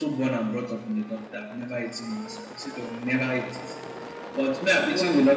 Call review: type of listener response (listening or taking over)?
listening